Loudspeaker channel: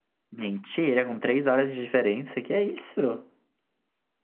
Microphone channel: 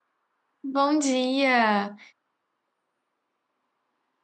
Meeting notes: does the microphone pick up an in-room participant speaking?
Yes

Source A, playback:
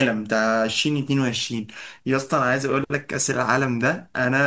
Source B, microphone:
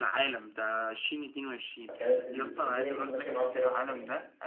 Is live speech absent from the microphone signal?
No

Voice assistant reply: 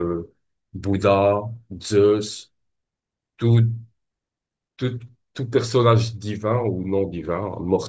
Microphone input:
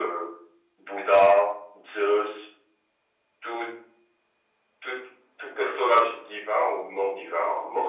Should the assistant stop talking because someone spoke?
No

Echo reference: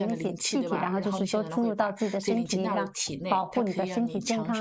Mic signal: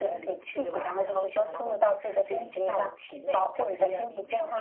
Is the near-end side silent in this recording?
Yes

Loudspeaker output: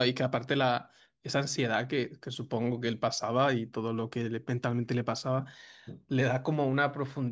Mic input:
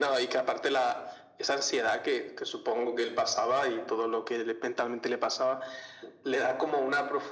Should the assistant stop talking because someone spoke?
No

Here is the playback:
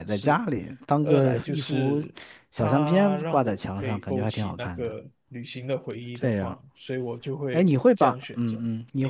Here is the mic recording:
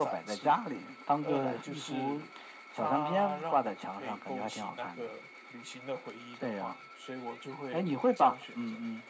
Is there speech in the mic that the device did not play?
No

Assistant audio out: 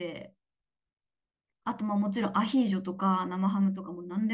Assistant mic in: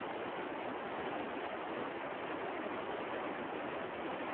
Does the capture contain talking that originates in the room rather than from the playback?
No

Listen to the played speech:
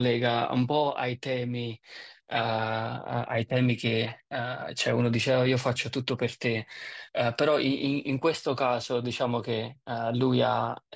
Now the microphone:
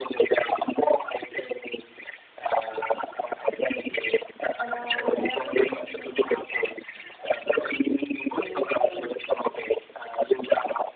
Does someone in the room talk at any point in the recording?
Yes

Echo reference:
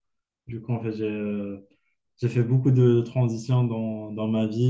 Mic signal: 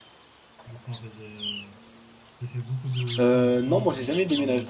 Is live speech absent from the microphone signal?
No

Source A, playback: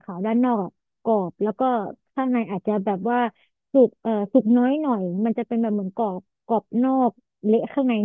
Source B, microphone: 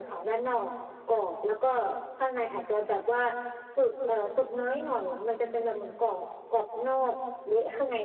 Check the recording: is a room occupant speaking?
No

